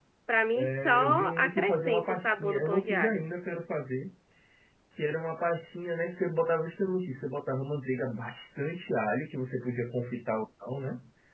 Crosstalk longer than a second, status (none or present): present